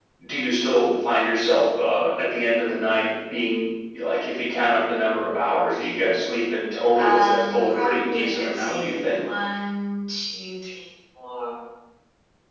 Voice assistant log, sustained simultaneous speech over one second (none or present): present